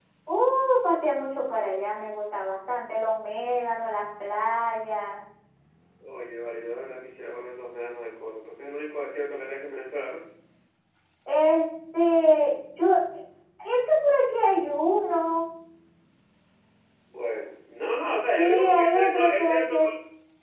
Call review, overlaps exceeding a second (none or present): present